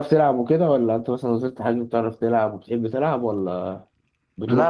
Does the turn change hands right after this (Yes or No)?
Yes